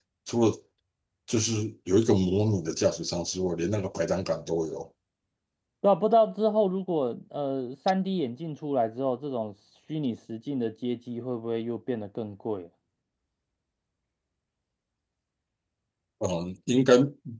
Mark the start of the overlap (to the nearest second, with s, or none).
none